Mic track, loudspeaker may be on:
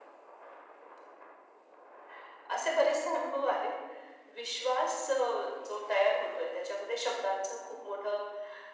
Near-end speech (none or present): none